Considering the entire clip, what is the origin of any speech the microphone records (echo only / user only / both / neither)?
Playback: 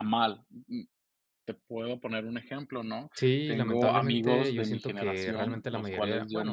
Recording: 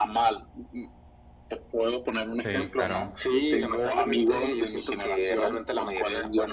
both